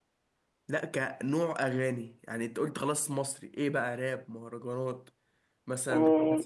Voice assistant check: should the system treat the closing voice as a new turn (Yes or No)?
Yes